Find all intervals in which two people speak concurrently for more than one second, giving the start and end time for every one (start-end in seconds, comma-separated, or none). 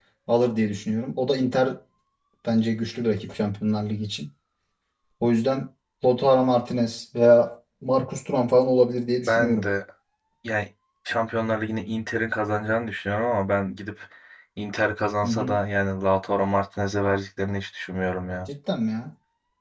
none